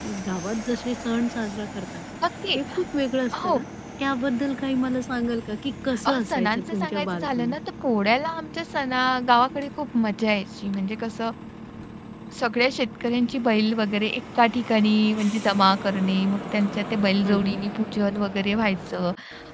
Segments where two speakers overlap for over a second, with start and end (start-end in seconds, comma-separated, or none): 6.0-7.5